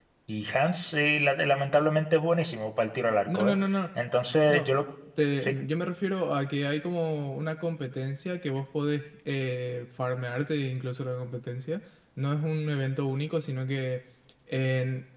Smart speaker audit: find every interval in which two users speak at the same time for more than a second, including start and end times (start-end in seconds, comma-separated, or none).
none